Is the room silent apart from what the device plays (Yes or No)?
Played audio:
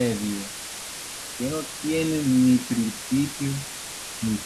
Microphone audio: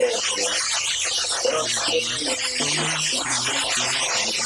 No